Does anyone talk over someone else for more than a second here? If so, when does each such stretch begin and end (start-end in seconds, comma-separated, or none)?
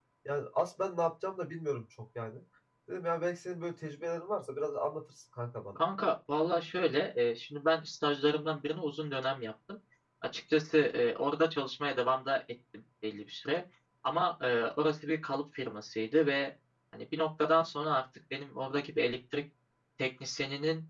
none